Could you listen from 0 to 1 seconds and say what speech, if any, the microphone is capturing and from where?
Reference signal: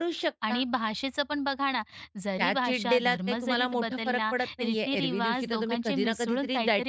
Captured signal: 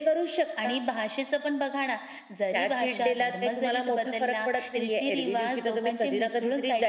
echo only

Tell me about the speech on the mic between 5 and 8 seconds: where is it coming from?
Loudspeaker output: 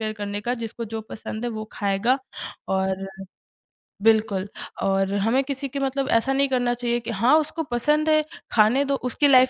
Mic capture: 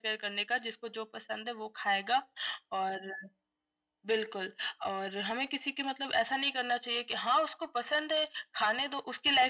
echo only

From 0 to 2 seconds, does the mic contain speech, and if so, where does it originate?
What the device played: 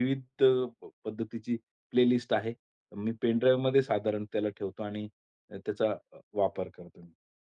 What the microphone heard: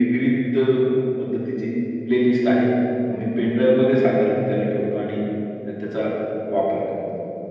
echo only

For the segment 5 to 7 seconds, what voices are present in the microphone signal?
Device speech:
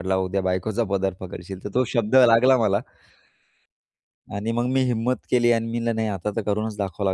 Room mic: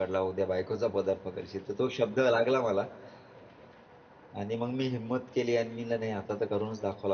echo only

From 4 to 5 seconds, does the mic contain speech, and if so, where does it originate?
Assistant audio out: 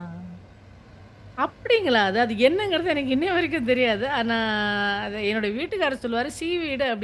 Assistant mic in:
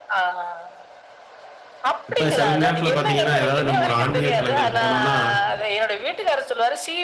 both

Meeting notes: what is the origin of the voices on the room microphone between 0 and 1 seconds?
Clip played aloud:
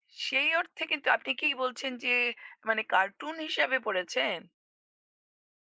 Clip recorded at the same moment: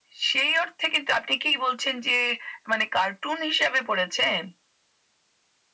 echo only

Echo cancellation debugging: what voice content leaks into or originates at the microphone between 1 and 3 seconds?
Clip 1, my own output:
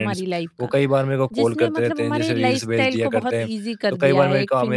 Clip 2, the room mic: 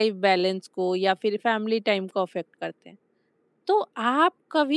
user only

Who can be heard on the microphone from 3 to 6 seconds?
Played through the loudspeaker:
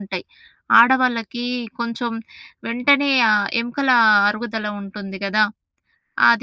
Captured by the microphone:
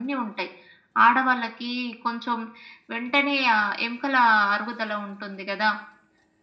echo only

